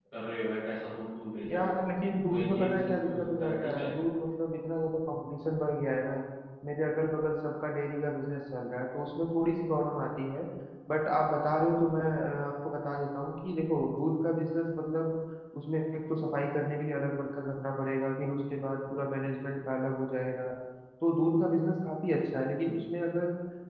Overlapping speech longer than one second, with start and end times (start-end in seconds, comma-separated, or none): 2.3-3.9